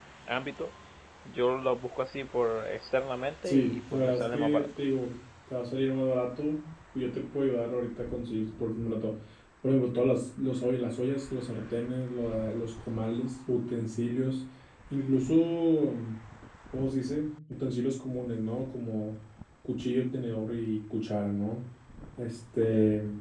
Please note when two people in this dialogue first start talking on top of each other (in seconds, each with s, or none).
3.4 s